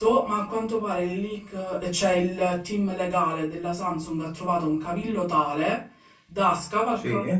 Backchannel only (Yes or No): Yes